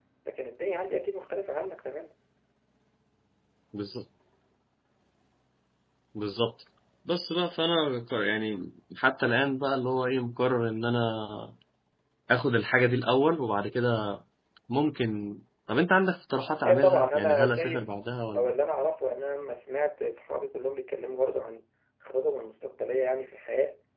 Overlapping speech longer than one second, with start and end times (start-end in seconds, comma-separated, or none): 16.6-17.9